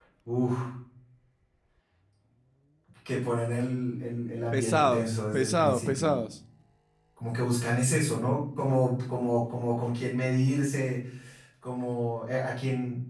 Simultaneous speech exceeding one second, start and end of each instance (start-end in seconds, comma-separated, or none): 4.5-6.1